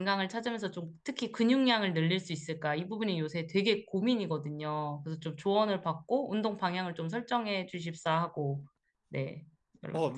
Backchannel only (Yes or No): No